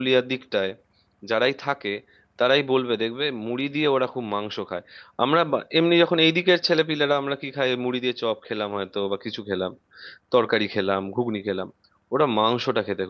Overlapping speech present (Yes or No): No